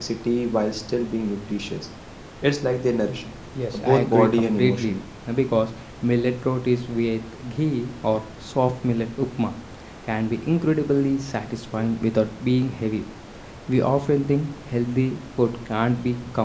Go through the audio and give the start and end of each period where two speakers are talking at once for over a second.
3.7-5.0

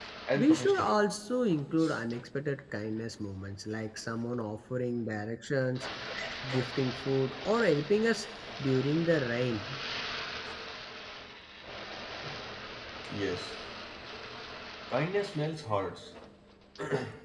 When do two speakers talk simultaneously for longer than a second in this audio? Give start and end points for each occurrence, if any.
none

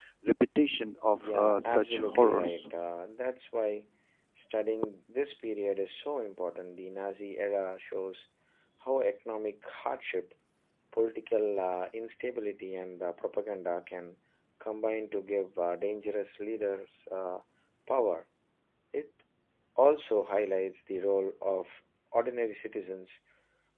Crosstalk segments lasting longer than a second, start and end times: 1.2-2.7

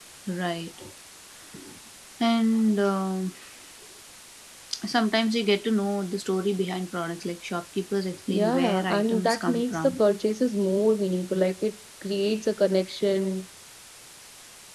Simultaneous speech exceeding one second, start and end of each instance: 8.3-10.0

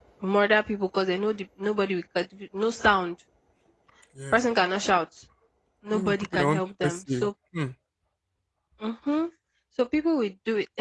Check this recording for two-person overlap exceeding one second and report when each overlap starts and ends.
5.9-7.3

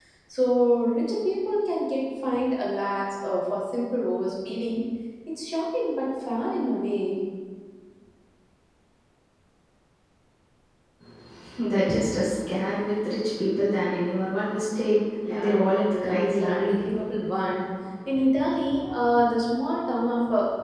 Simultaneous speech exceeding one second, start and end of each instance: 15.3-16.8

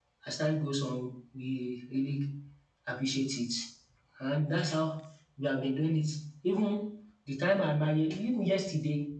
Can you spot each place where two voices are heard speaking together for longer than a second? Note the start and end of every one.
none

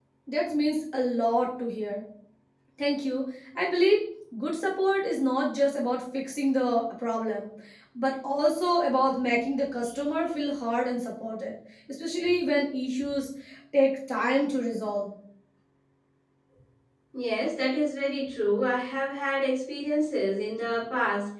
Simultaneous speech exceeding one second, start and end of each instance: none

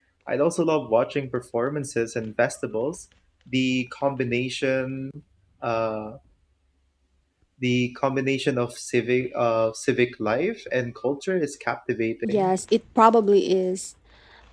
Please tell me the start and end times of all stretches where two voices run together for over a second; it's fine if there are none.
none

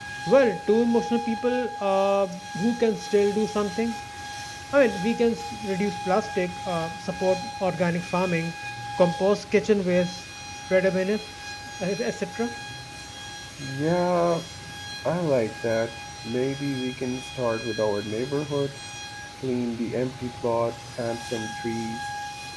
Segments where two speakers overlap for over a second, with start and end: none

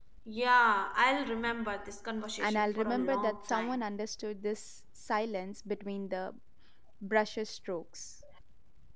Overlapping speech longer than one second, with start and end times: 2.4-3.8

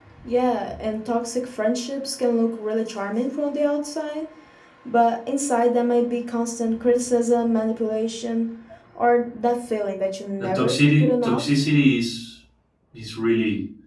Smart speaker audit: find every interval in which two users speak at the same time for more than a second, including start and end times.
10.4-11.6

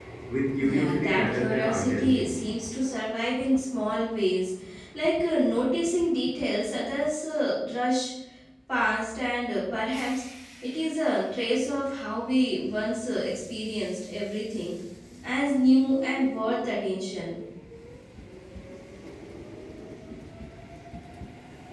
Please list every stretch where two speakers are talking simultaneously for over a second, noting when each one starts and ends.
0.6-2.3

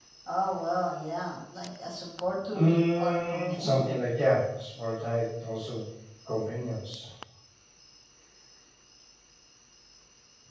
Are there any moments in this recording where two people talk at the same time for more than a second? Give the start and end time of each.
2.5-3.9

